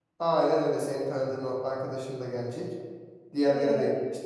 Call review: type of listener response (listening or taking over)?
listening